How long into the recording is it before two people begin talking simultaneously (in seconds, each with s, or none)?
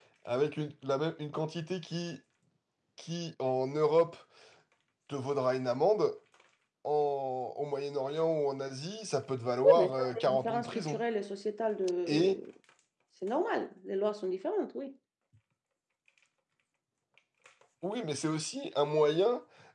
9.8 s